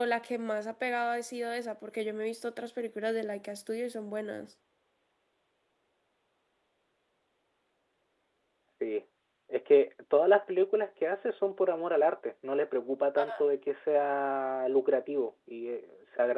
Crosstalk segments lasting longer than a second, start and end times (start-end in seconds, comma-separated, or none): none